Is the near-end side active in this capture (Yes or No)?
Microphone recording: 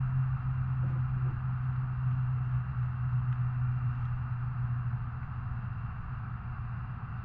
No